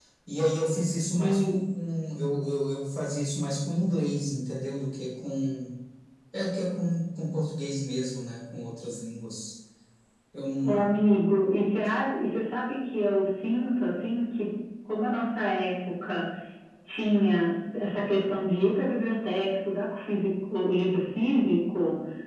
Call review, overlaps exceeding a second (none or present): none